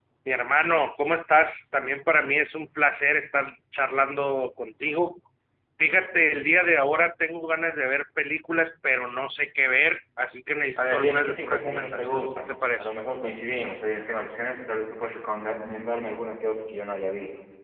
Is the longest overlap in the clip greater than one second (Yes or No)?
Yes